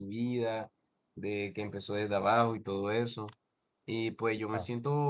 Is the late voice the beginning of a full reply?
No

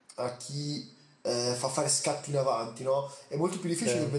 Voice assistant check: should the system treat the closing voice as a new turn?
No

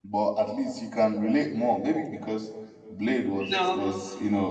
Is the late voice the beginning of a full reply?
No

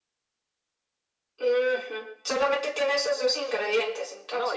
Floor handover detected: Yes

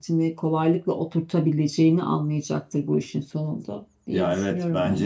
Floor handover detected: Yes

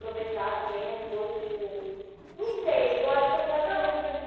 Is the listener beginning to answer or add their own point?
No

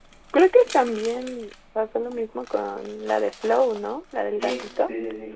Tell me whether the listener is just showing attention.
No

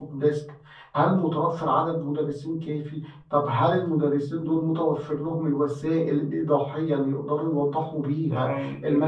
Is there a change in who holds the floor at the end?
Yes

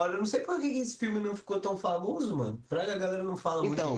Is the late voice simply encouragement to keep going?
No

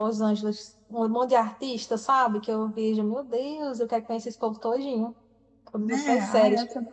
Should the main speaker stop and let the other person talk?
Yes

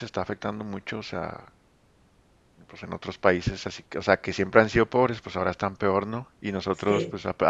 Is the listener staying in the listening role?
Yes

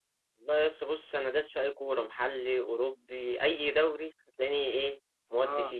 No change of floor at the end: Yes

